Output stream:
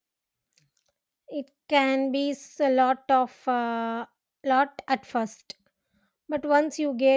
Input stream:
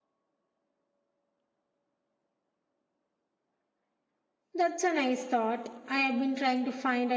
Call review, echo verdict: none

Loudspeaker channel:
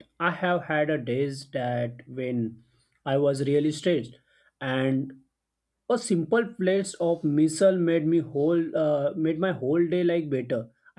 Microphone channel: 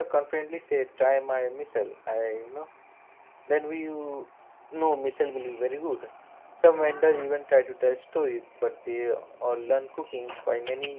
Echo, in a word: none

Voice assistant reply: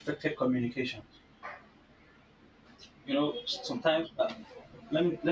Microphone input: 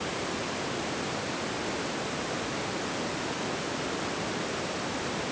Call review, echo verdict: none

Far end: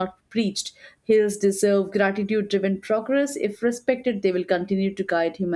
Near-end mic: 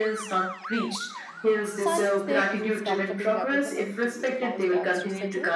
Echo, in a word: present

